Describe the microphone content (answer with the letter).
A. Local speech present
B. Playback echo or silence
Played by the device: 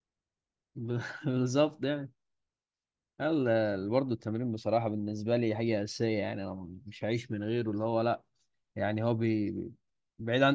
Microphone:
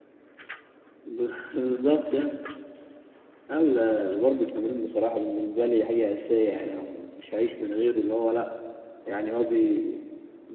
B